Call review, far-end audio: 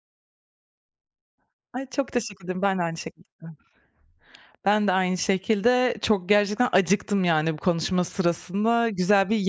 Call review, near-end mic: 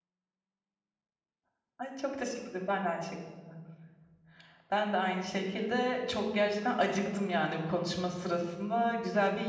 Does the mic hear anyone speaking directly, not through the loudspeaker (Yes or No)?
No